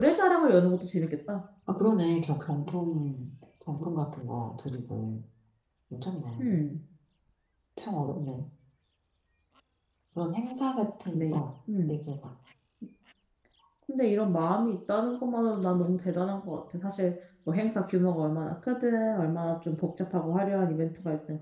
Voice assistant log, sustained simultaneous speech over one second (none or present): none